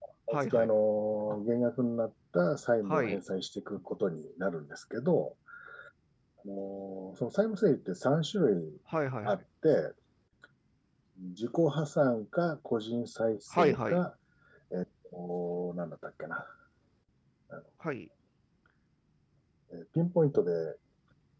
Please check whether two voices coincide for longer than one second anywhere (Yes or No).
No